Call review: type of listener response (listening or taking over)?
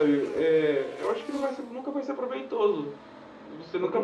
listening